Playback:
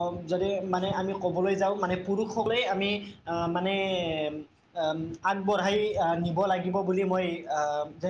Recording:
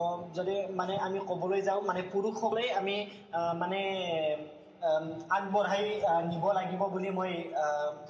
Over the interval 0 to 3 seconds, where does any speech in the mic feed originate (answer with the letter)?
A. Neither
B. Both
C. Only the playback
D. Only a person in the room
C